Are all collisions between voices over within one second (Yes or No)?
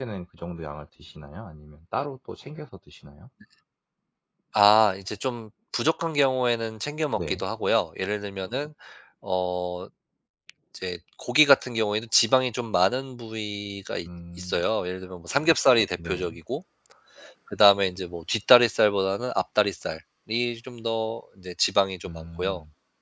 Yes